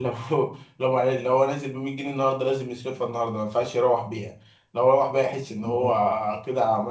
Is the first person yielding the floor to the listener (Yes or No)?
No